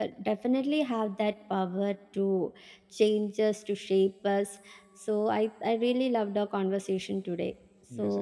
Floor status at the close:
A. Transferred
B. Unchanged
A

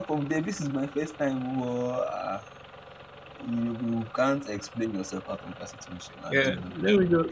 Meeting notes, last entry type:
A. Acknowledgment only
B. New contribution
B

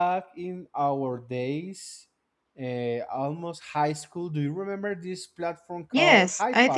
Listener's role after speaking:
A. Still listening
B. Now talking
B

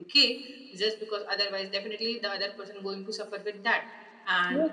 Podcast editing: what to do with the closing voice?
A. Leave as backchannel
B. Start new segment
A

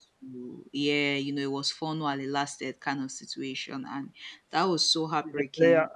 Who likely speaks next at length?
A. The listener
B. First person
B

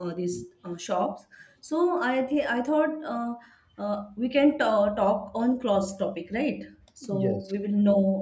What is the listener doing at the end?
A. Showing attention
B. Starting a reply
A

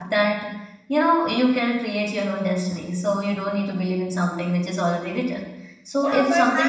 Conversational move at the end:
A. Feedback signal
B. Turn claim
B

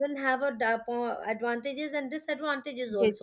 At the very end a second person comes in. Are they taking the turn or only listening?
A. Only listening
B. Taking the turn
B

